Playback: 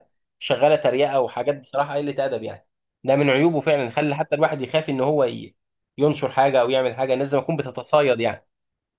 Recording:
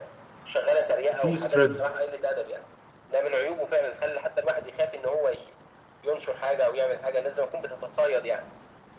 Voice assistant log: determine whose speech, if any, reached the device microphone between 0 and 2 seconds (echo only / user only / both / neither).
both